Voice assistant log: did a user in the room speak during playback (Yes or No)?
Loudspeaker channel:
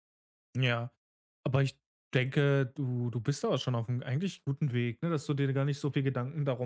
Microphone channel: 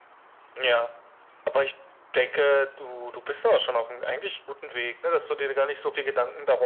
No